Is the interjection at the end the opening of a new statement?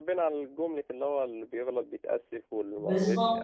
Yes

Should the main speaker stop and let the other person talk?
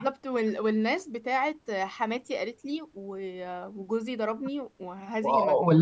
Yes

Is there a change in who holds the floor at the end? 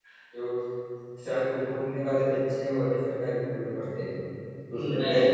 No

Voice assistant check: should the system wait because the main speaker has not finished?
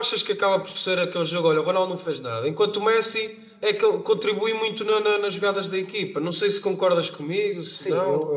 No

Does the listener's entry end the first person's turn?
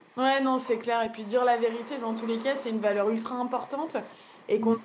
No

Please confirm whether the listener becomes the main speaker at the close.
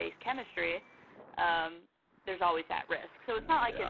No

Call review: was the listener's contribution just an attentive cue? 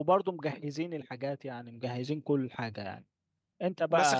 No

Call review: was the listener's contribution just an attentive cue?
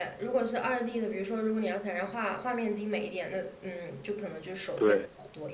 Yes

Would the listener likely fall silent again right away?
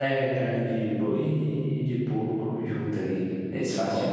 Yes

